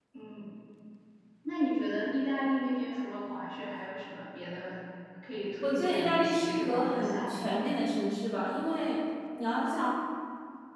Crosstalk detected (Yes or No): Yes